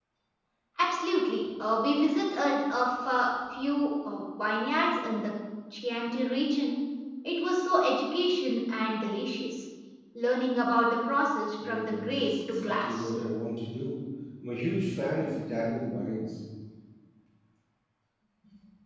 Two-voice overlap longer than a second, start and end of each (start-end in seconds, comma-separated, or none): 11.6-13.1